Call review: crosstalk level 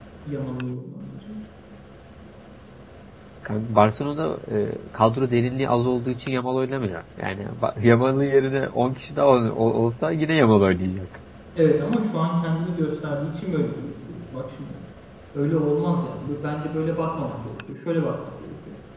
none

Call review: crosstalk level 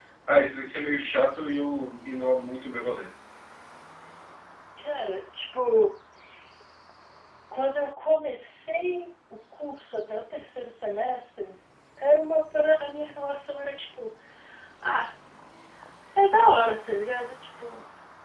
none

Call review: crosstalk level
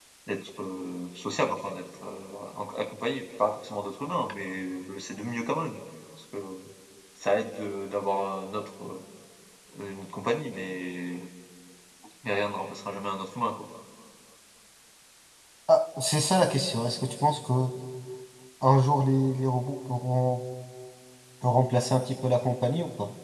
none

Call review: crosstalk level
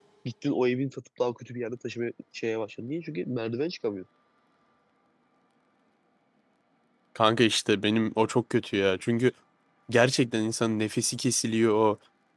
none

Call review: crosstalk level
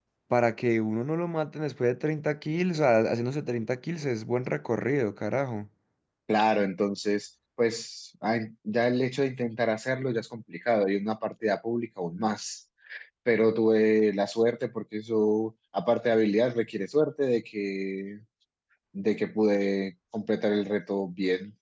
none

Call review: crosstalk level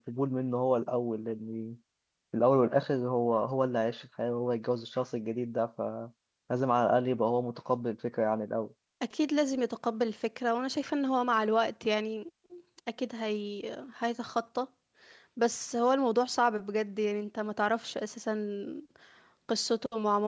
none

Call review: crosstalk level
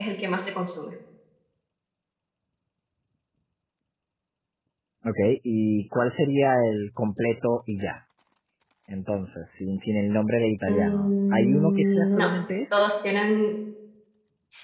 present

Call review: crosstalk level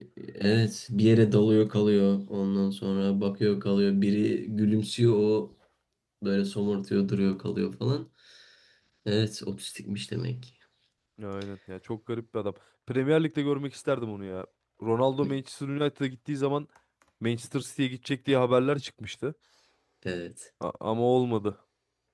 none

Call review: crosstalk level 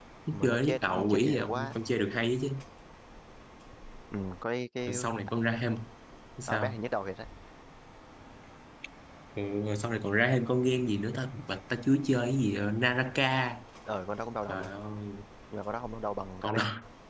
present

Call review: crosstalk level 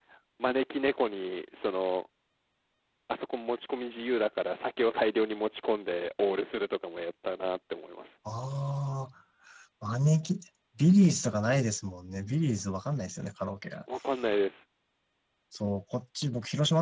none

